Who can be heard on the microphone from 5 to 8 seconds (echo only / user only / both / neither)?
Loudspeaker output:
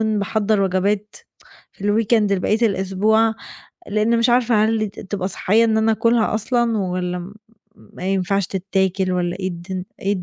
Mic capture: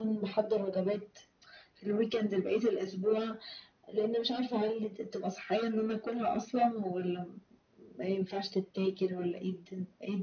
echo only